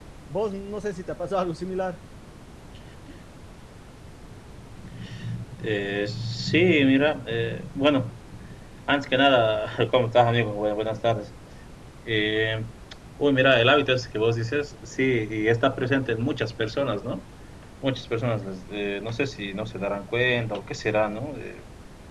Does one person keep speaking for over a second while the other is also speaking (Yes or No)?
No